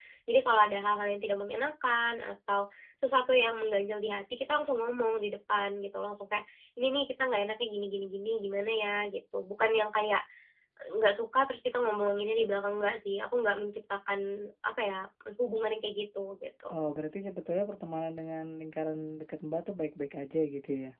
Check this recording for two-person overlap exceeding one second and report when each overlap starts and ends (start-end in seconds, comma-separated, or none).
none